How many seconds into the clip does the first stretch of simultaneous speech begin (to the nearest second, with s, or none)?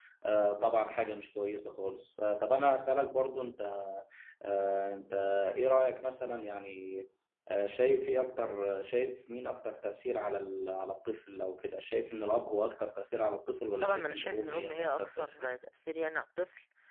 14 s